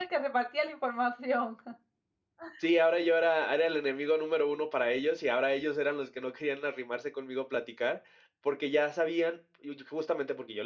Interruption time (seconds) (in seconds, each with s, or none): none